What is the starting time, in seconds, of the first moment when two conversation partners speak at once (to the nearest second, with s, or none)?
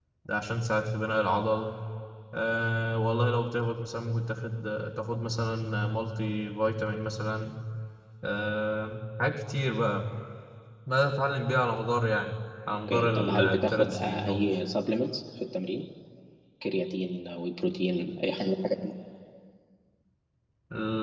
13 s